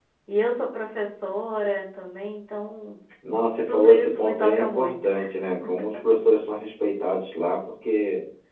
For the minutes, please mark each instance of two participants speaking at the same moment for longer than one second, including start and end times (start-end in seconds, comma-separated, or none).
3.7-5.1